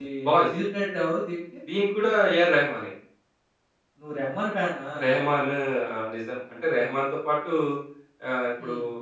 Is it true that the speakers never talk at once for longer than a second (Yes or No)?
Yes